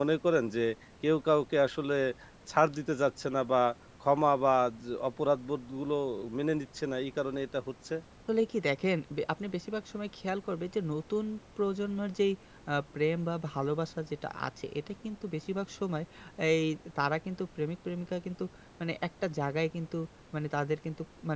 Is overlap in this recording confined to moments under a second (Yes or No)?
Yes